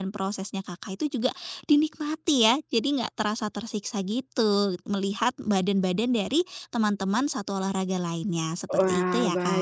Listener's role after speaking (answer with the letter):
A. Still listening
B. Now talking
B